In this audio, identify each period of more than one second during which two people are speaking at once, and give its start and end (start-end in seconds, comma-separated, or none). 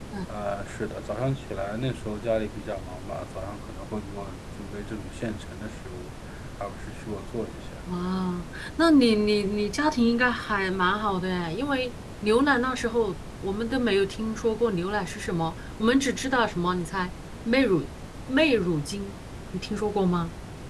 none